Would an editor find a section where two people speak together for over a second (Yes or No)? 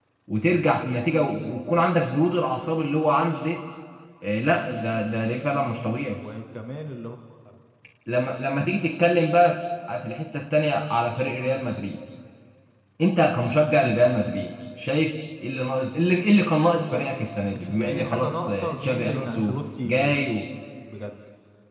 Yes